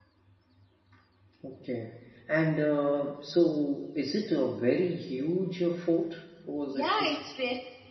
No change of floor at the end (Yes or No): No